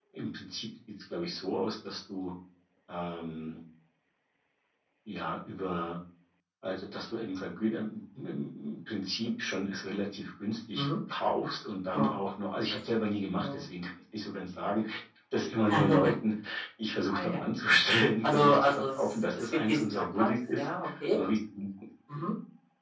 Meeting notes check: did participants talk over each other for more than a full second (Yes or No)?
Yes